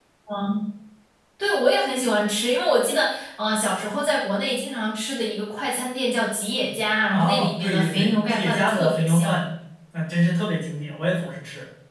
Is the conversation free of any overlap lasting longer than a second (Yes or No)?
No